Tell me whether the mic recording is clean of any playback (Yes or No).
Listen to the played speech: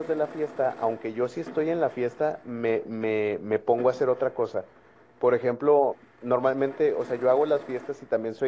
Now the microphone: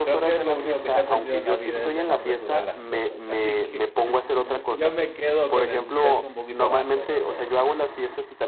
No